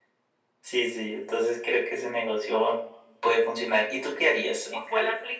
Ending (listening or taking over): taking over